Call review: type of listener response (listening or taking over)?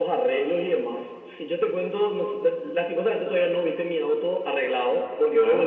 listening